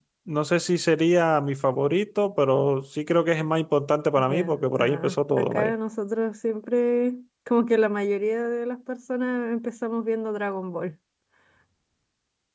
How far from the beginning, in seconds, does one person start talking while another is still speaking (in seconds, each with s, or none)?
4.2 s